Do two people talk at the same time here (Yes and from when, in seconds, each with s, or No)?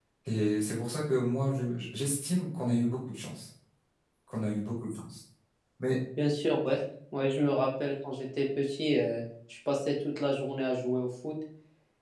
No